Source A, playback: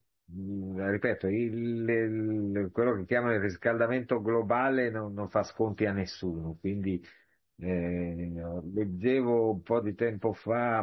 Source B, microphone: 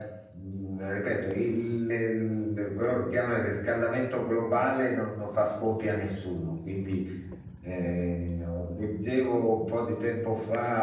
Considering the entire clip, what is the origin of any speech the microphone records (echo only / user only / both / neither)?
echo only